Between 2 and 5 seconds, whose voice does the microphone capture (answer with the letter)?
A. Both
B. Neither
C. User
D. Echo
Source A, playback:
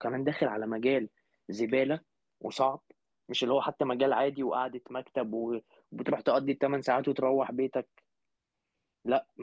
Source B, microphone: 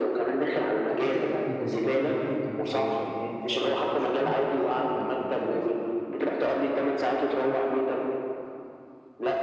A